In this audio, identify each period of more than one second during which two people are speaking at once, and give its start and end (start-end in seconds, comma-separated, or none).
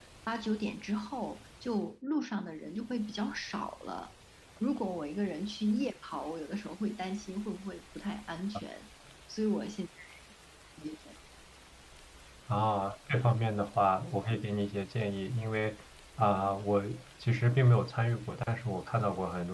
none